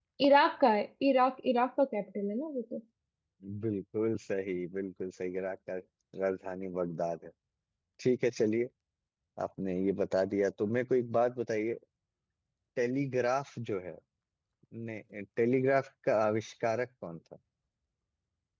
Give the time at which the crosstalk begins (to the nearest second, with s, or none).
none